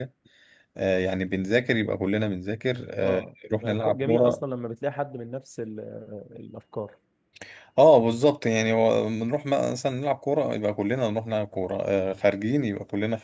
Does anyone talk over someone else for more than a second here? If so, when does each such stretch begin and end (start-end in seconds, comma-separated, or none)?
3.0-4.4